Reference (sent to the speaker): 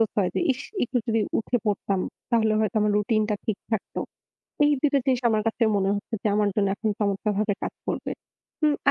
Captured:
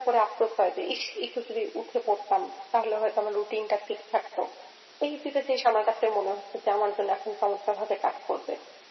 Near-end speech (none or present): none